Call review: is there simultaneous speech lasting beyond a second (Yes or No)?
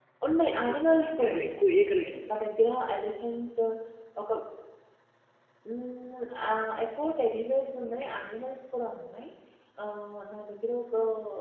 Yes